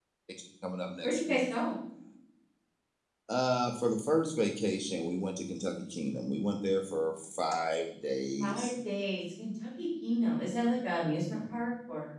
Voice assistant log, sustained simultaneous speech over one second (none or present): none